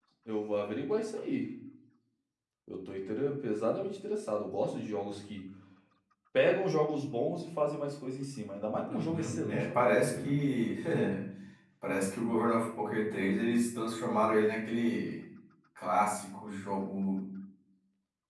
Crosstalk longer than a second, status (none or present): present